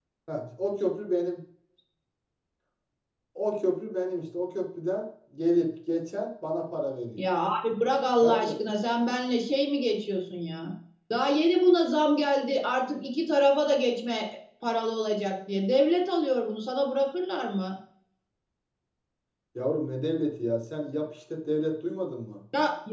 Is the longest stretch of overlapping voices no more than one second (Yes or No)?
Yes